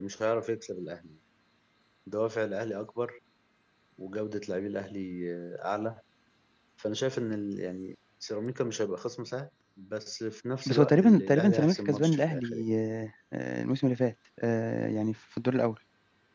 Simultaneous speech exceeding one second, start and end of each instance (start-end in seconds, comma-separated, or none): 10.7-12.7